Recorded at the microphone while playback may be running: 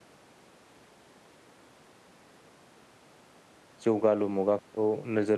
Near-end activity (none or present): present